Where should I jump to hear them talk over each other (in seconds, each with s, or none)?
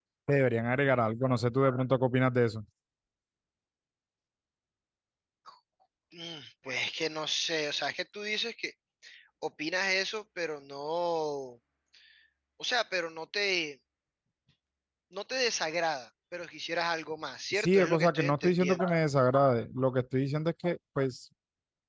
17.5 s